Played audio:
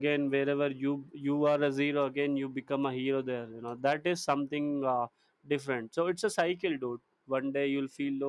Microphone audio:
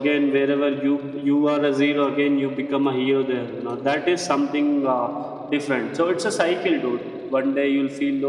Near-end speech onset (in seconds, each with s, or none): none